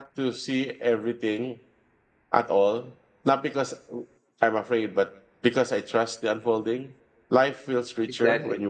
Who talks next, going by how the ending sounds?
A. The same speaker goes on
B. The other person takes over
A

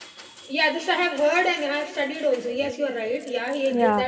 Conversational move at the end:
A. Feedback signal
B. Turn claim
B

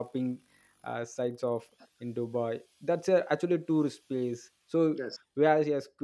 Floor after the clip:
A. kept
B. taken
A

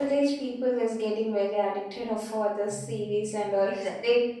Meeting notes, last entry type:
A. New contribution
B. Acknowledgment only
A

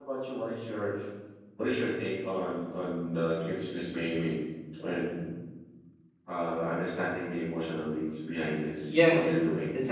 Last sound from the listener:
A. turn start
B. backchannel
A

